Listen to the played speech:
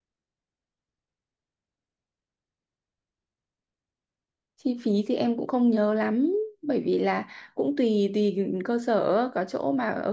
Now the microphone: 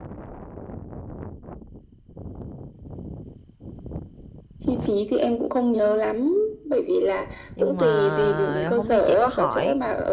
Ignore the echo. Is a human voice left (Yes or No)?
Yes